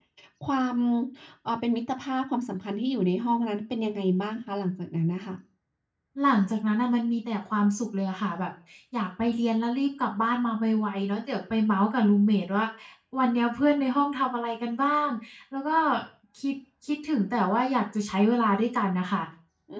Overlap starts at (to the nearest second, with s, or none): none